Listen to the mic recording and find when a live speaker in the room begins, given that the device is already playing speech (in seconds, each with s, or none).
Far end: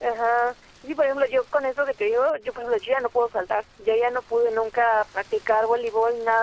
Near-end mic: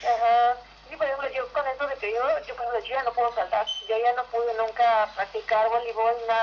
none